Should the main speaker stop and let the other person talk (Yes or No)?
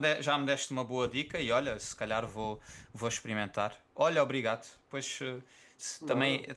No